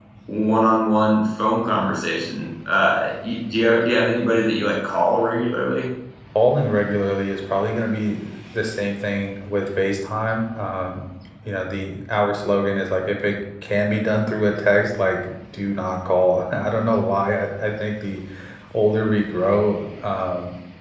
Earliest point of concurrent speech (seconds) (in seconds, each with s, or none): none